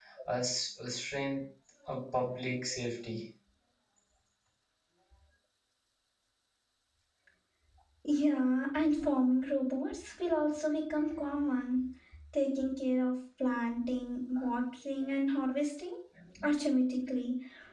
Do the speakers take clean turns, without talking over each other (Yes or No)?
Yes